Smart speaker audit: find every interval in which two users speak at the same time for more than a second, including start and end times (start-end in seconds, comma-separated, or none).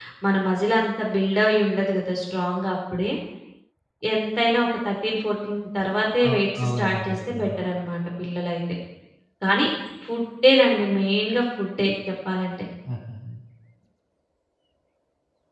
6.3-7.6